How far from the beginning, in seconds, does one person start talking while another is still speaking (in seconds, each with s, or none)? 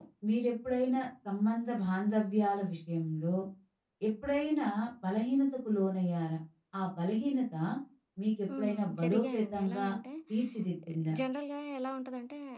8.6 s